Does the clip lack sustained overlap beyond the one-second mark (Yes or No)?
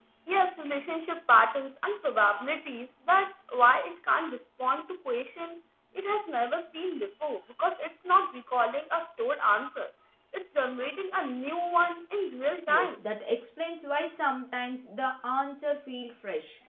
Yes